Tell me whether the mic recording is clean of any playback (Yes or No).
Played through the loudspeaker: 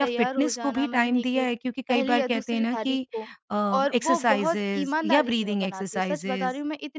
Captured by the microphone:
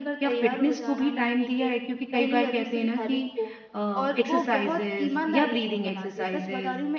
No